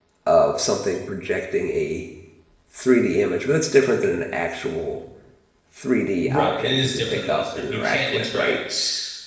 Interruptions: present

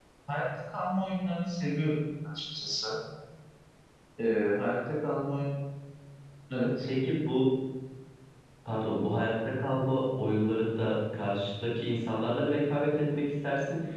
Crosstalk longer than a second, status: none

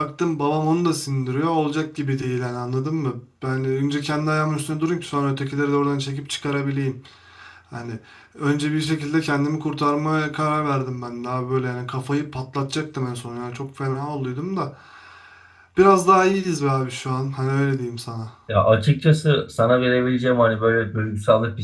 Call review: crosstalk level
none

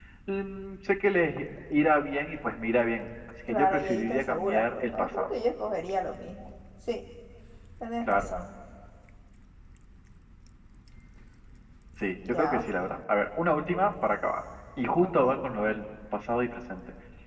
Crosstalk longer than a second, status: present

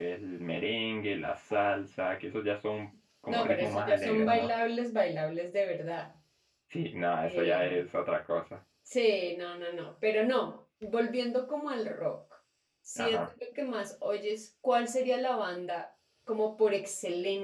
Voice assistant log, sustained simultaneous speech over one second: present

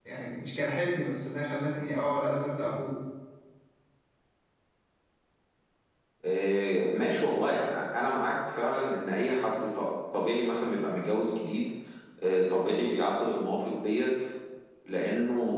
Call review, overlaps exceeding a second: none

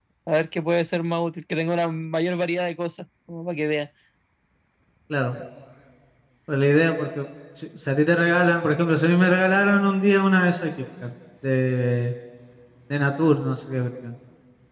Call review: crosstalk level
none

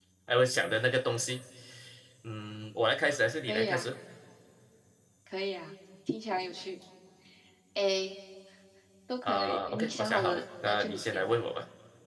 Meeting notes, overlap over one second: present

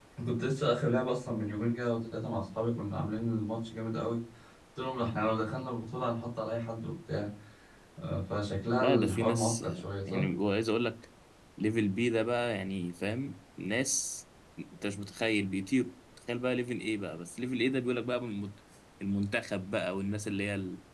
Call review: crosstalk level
present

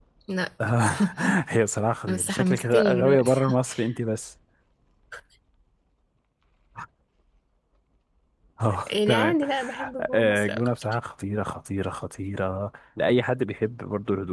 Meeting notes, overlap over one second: present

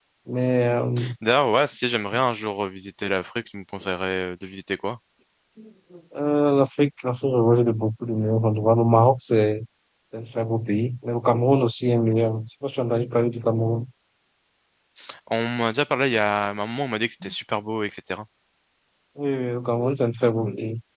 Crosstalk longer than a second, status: none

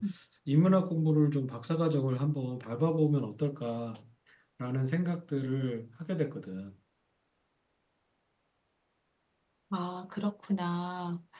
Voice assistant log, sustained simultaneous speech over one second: none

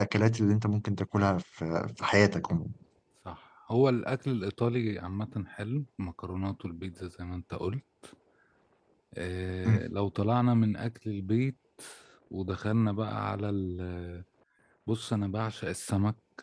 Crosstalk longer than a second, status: none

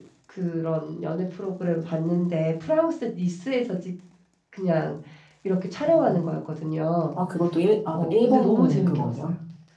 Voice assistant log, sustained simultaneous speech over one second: present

